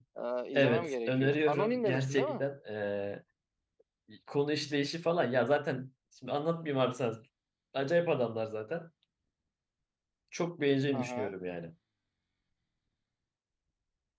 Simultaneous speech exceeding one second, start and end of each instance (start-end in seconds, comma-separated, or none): 0.5-2.4